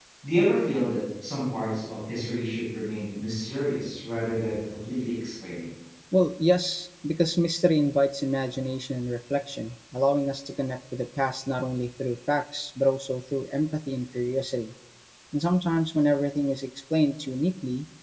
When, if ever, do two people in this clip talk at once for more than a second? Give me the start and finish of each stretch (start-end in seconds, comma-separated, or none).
none